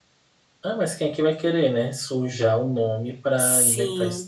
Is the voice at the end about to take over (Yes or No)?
Yes